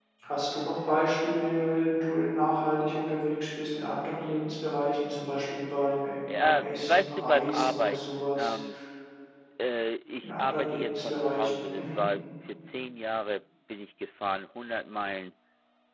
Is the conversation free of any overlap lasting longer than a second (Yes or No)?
No